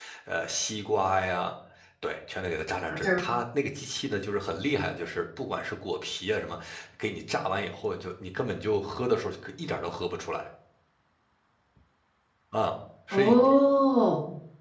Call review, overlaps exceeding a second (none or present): none